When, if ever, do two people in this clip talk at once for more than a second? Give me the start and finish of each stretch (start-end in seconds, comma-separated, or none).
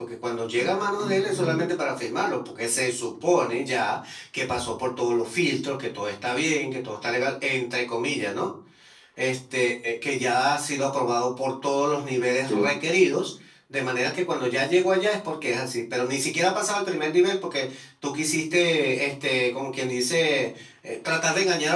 0.5-1.8